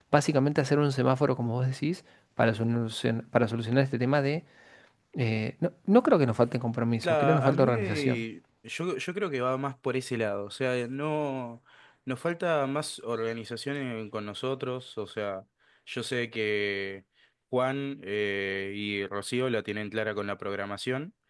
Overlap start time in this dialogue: 7.0 s

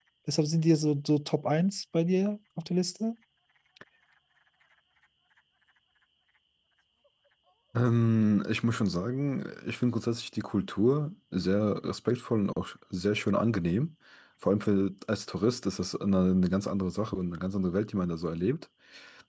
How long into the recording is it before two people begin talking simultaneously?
none

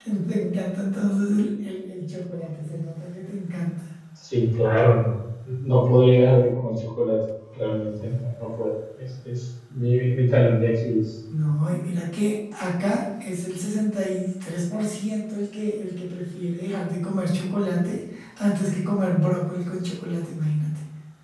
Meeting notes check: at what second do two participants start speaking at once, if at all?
none

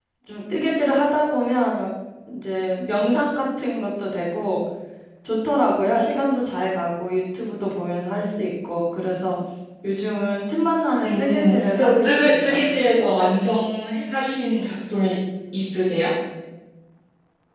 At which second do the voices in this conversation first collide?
11.0 s

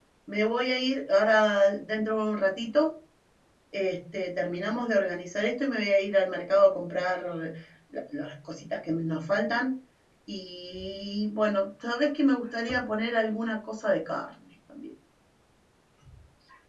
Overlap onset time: none

